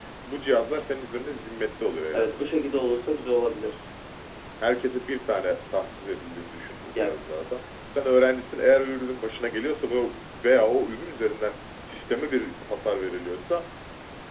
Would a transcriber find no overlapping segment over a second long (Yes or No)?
Yes